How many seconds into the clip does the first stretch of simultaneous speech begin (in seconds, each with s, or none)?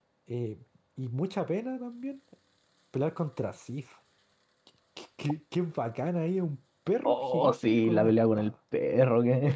7.0 s